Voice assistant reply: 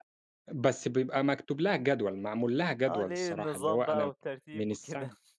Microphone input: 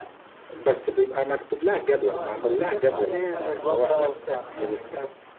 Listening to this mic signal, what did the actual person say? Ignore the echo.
آه أنت ملتزم فيها بحاجة ما تقدرش تطلع من عليها.

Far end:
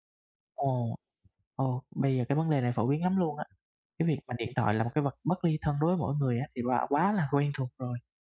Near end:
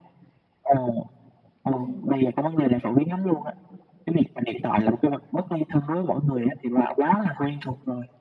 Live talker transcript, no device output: Ừm.

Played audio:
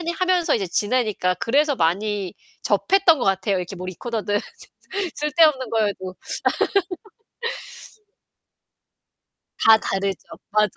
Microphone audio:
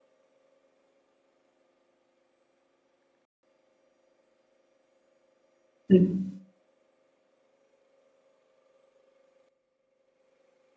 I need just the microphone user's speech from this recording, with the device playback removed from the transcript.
음.

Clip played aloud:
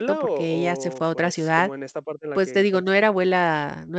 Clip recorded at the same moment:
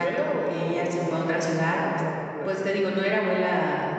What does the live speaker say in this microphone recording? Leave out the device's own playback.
none

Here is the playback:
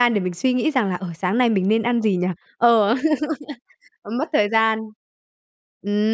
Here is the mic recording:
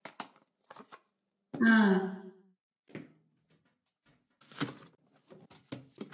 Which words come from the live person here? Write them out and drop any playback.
Ờ.

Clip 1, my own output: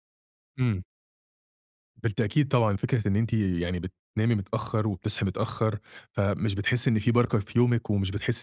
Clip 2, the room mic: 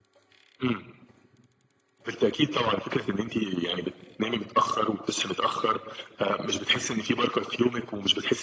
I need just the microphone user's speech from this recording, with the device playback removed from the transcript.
none

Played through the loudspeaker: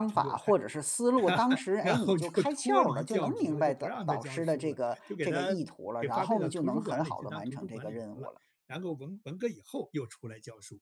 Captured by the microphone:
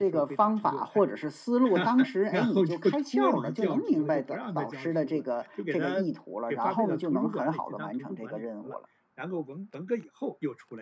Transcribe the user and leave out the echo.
none

